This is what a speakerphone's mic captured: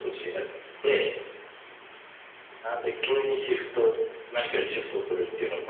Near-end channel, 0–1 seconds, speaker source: echo only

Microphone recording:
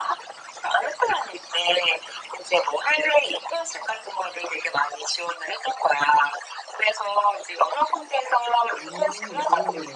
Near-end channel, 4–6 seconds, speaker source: echo only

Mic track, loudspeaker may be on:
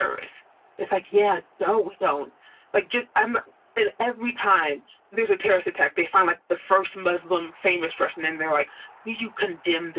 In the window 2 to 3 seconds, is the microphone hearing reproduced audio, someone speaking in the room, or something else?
echo only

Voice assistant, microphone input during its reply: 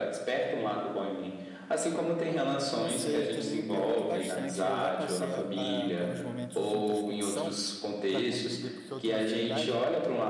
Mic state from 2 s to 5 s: both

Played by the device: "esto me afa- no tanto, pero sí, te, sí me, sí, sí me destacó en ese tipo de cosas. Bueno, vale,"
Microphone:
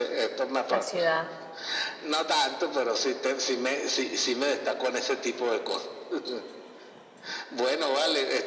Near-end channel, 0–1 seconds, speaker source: both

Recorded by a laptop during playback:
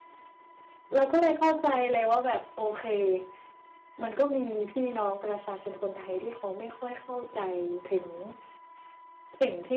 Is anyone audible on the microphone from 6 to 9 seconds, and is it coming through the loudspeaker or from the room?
echo only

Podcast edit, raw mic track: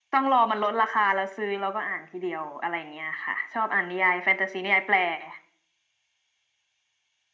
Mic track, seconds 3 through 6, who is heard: echo only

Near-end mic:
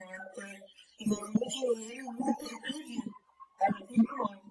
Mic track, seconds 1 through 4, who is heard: echo only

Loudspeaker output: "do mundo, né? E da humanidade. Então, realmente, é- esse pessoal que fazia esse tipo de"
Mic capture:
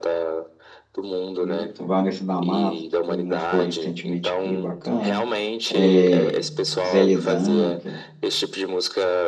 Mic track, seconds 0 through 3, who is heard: both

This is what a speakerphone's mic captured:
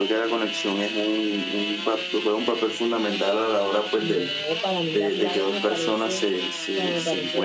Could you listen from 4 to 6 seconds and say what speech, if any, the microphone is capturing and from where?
both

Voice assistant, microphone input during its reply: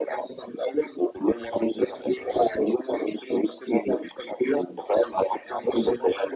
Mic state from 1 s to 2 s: echo only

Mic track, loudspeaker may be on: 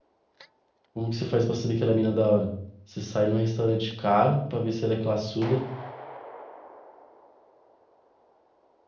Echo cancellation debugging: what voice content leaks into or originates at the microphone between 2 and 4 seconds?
user only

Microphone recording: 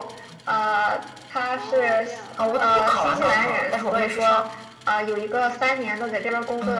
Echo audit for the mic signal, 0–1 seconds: echo only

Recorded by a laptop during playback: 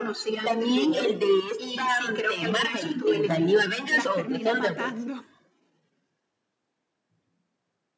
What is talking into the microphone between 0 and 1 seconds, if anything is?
echo only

